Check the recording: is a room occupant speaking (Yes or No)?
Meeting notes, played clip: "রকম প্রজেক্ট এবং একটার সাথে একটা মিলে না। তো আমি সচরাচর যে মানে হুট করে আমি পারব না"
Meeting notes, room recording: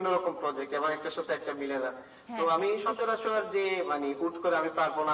Yes